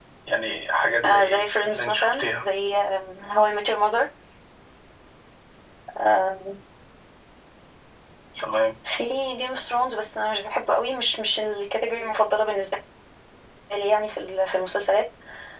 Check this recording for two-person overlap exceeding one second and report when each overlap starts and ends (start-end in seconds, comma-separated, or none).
1.1-2.4